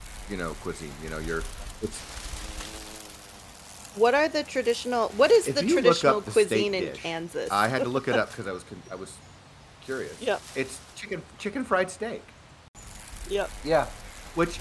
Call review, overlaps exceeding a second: present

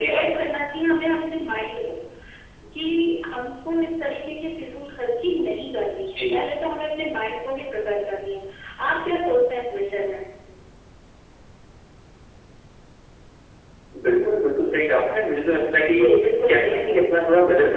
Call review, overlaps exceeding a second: none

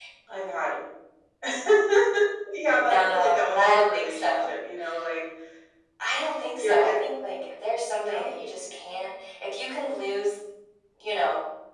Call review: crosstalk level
present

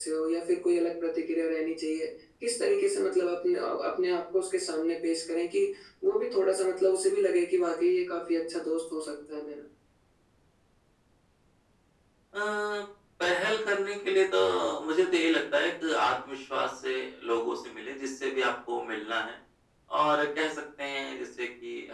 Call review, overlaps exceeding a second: none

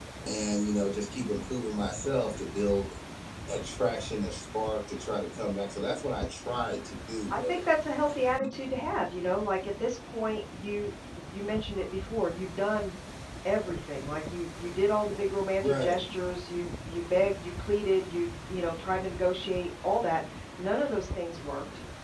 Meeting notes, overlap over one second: none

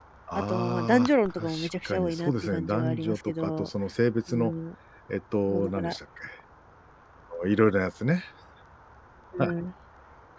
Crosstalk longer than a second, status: present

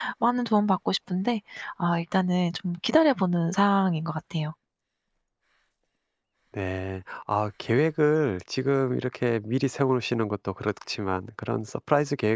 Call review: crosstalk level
none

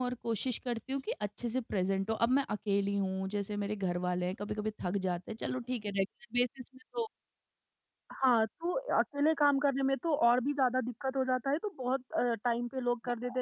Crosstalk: none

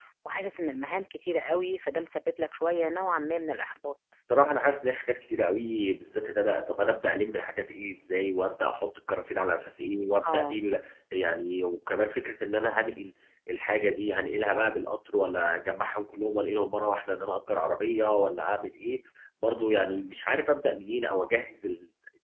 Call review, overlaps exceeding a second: none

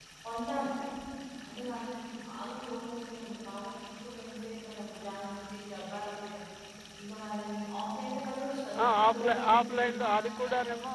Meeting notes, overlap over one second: present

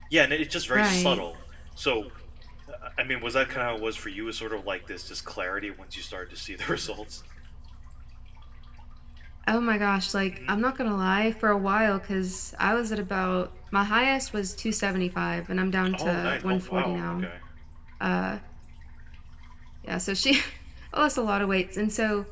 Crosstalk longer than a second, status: present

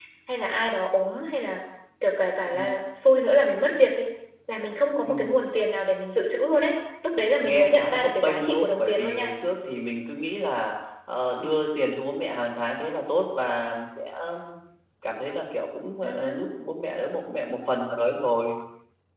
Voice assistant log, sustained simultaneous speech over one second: present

